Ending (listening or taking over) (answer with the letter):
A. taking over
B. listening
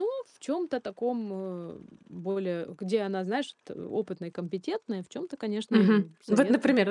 A